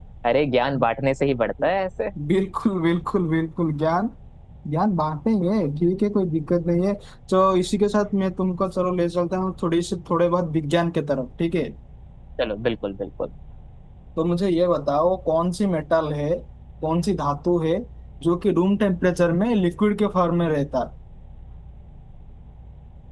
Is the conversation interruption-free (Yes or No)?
Yes